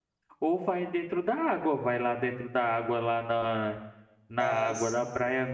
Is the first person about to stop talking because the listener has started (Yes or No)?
No